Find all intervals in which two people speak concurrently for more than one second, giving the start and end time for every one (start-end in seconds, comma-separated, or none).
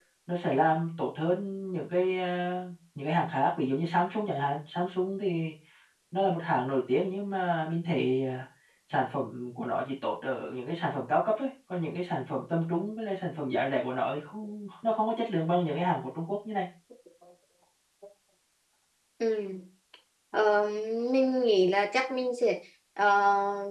none